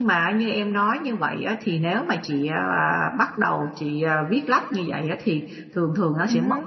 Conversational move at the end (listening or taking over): listening